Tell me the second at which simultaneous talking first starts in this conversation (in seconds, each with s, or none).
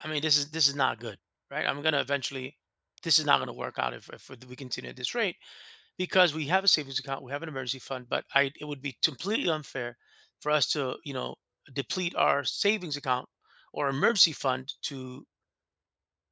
none